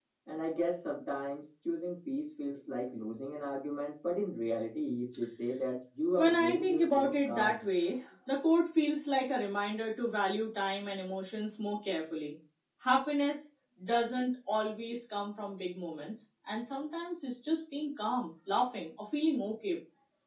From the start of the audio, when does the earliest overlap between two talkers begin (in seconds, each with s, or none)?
6.2 s